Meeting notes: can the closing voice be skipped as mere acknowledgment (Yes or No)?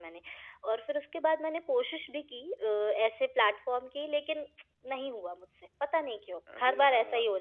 No